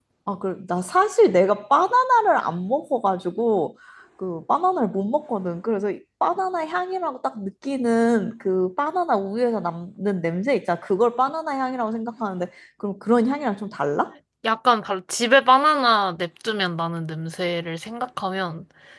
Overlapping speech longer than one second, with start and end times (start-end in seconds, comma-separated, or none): none